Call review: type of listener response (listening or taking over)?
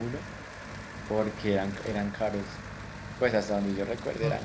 taking over